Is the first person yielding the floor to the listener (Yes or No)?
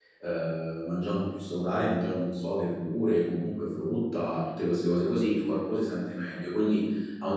No